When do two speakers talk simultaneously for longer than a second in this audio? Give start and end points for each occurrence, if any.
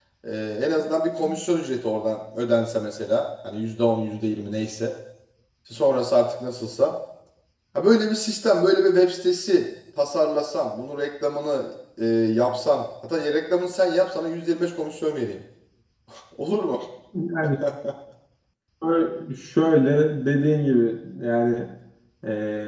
none

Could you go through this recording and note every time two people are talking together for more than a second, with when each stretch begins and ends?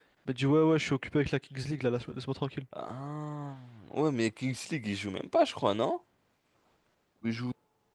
none

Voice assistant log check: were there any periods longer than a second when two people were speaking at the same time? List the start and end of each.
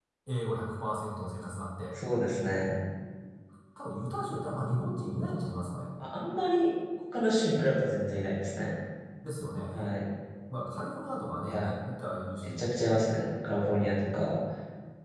none

